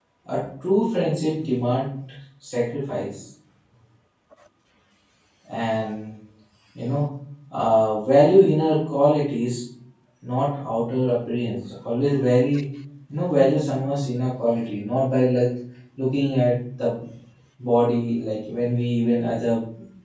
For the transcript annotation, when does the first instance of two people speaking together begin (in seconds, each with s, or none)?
none